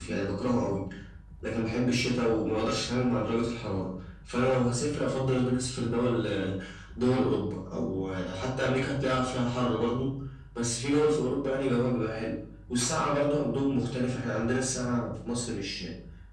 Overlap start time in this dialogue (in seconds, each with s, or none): none